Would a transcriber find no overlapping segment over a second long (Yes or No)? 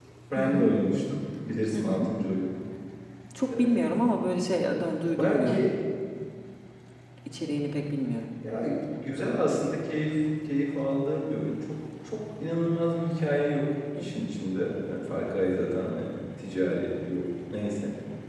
Yes